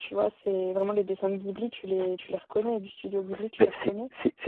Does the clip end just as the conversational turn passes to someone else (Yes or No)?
Yes